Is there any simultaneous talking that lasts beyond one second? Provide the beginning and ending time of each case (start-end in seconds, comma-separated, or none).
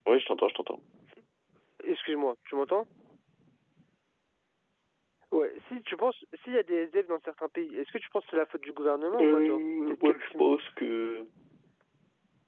9.2-10.4